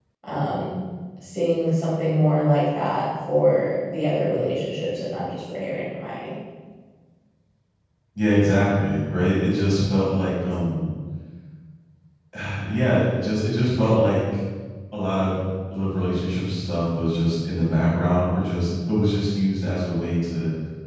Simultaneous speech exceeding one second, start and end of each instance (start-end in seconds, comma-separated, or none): none